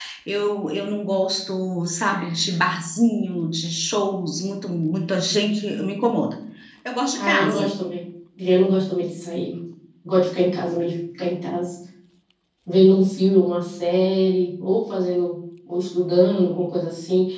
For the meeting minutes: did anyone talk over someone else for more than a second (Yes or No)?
No